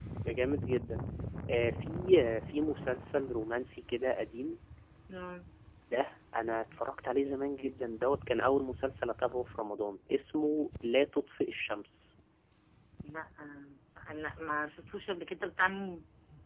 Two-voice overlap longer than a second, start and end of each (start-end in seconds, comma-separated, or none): none